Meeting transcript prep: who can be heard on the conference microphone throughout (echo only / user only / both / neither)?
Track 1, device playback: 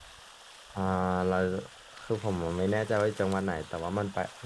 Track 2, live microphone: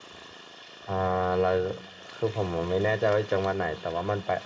echo only